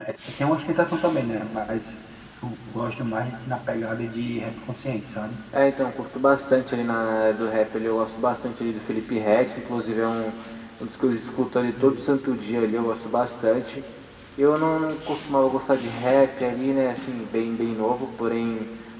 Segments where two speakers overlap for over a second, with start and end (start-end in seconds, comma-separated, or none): none